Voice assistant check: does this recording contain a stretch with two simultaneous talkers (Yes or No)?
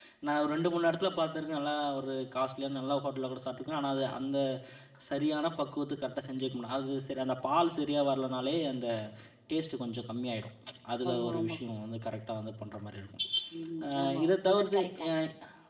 Yes